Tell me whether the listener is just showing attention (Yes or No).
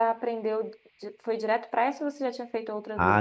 No